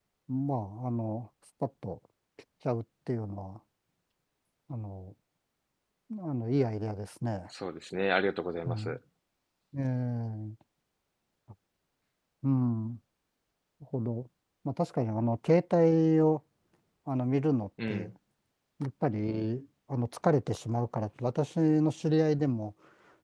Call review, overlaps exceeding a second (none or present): none